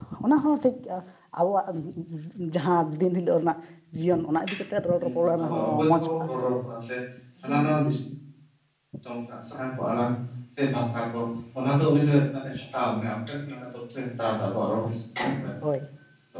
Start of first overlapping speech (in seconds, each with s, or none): 5.0 s